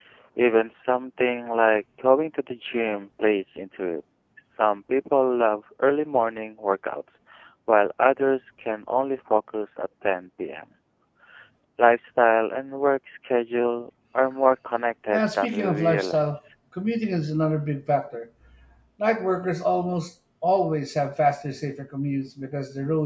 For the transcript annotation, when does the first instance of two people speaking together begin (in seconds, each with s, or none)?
15.1 s